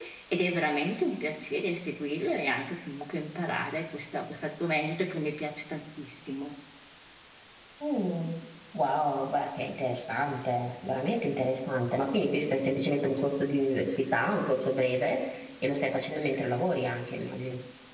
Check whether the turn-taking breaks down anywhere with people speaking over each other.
No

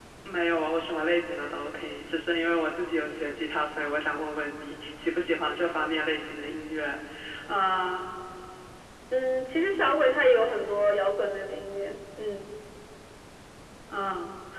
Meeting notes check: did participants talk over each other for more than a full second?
No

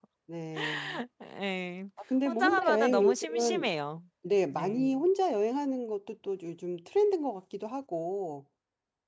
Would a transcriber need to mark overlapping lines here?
Yes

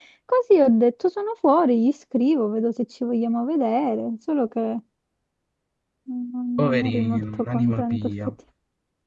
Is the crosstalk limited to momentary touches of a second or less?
No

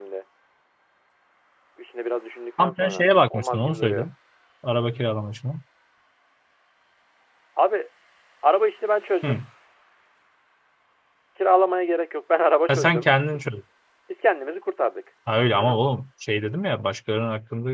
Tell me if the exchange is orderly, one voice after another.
No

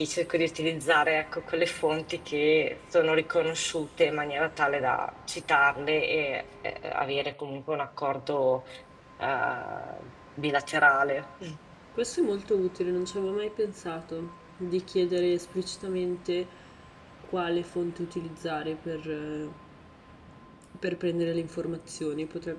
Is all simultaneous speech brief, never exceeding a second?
Yes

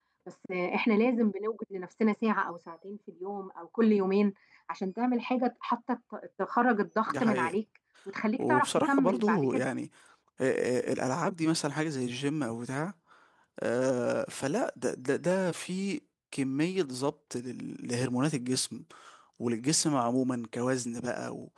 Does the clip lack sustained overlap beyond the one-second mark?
No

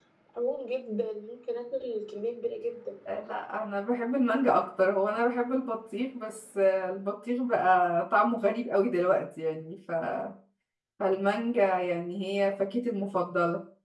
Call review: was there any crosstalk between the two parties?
No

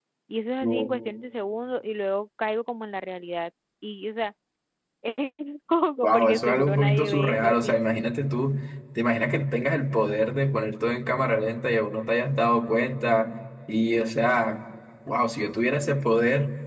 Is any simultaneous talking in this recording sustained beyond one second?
Yes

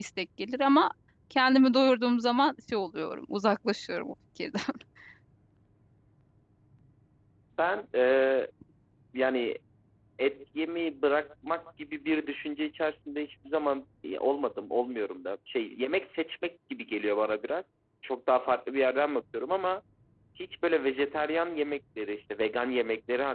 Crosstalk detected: No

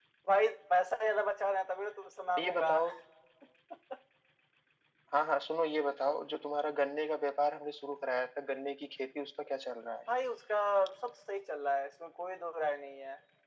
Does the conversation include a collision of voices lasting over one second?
No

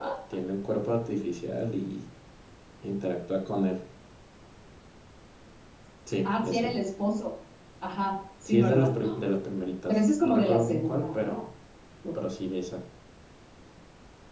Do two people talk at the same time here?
Yes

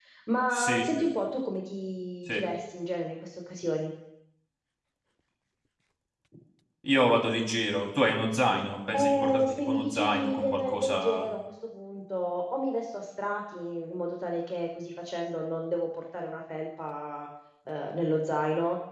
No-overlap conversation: No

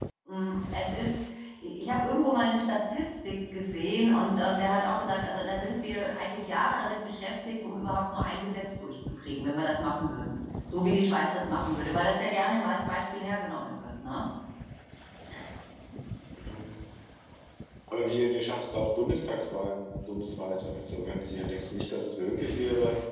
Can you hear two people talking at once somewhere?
No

